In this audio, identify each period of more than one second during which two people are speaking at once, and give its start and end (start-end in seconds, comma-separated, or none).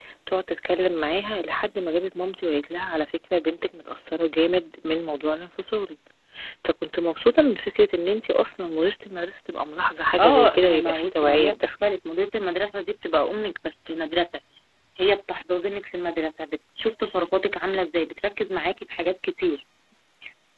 10.2-11.7